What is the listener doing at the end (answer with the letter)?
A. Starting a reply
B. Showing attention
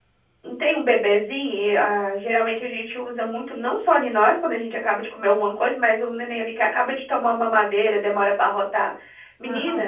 B